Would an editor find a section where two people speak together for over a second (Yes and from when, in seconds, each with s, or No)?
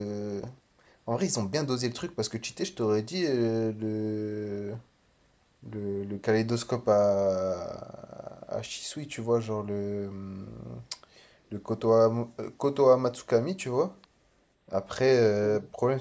No